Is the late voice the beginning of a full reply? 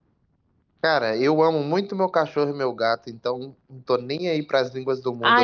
Yes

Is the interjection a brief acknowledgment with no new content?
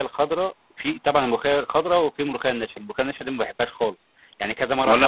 Yes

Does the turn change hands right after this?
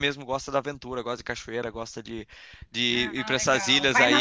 Yes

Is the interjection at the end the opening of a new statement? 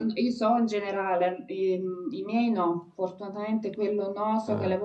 No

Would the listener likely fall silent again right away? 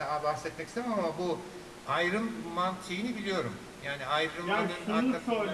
No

